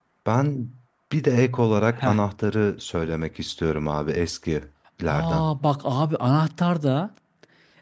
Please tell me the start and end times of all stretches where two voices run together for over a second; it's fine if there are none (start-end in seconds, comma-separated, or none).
none